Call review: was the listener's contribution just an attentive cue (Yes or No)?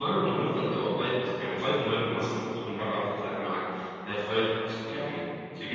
Yes